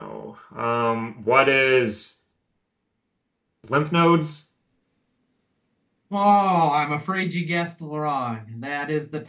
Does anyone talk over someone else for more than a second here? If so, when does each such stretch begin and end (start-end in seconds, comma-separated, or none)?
none